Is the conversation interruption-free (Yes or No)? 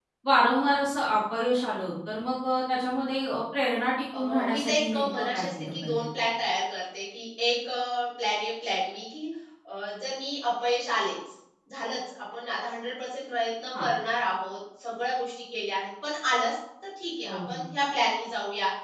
No